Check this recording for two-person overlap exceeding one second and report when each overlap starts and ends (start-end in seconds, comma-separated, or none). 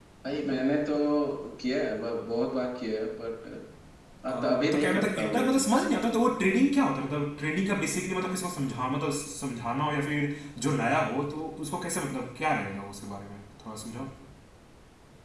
4.3-5.7